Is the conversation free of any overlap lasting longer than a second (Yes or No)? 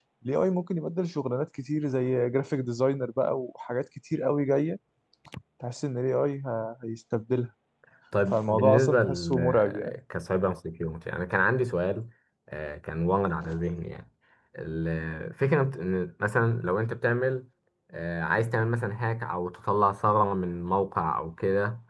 No